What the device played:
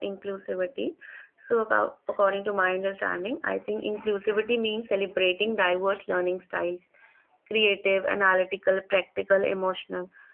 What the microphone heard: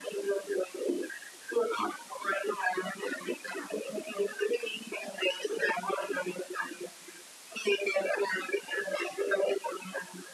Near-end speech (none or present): none